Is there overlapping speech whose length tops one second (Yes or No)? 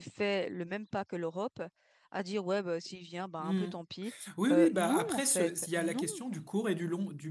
Yes